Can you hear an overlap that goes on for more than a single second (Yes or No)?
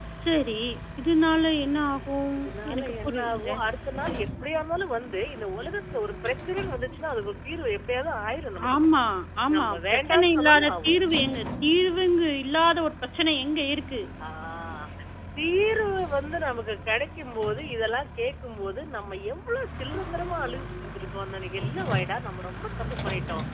Yes